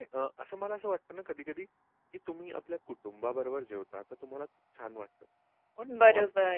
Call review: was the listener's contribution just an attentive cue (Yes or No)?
Yes